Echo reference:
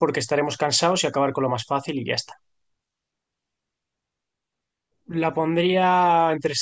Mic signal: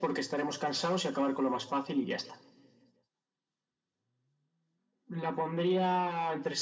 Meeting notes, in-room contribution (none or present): none